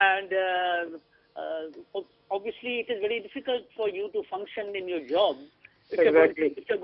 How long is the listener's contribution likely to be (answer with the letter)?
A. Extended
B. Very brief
B